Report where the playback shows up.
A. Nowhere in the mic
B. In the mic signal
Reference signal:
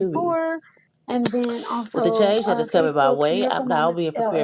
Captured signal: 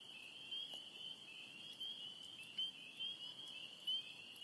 A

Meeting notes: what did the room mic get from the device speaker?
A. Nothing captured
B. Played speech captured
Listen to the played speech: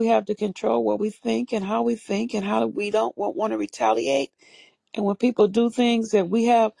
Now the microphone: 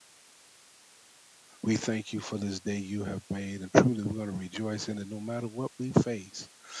A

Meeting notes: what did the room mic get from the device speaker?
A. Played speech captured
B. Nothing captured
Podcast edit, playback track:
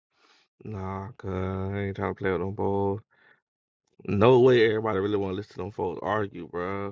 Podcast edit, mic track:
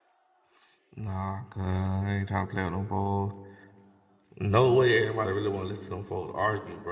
A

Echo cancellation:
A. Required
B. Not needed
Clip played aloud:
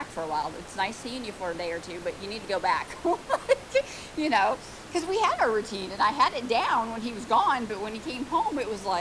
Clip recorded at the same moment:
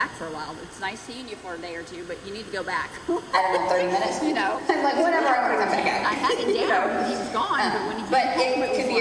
A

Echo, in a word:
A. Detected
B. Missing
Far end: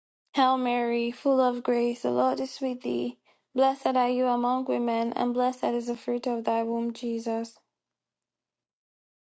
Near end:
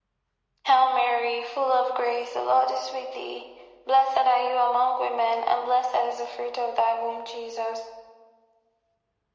A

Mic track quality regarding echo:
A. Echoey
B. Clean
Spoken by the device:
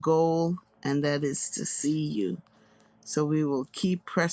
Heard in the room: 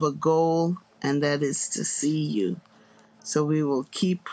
A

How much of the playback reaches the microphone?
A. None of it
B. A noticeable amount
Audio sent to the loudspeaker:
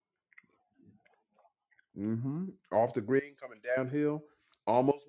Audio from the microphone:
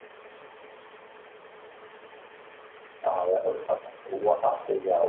A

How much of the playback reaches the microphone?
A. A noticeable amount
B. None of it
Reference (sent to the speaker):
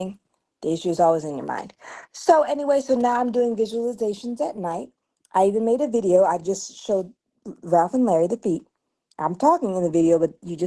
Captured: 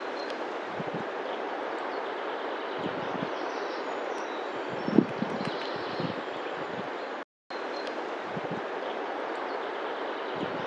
B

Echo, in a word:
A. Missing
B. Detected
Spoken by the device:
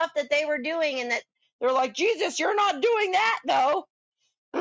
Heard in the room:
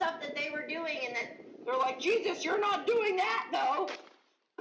B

